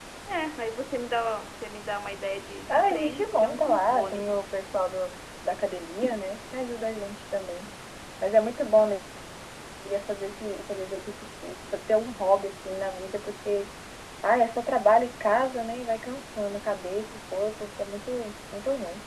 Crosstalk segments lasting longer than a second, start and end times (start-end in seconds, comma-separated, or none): 2.7-4.4